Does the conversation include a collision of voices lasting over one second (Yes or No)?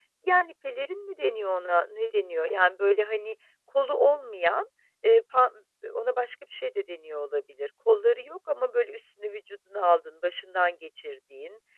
No